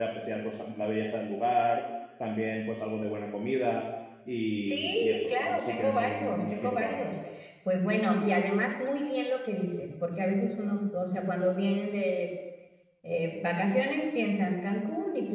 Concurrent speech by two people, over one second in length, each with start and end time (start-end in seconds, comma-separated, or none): 4.7-7.0